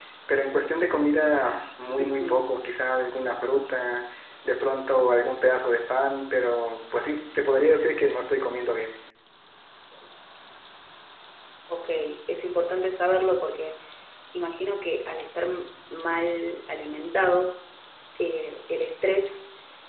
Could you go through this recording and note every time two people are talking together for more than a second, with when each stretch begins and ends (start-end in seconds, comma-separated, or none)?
none